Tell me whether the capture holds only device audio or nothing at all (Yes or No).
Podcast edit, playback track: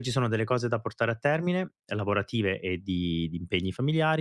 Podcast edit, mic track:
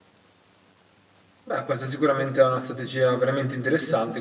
No